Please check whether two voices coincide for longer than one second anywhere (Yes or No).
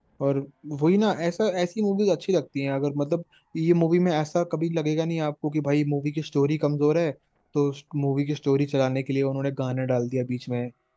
No